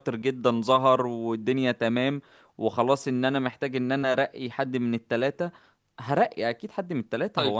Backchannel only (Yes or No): No